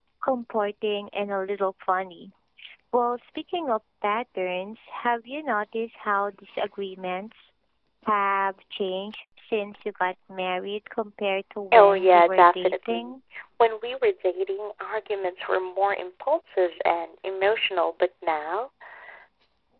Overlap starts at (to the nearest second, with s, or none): 12 s